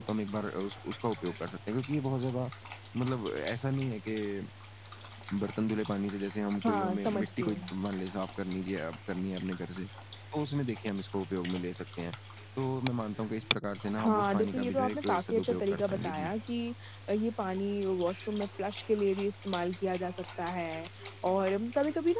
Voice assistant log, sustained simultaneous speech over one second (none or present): present